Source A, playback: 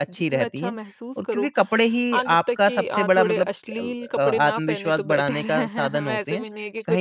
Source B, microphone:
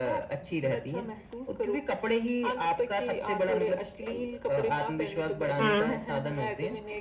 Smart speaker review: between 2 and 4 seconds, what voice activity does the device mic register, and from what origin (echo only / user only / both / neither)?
echo only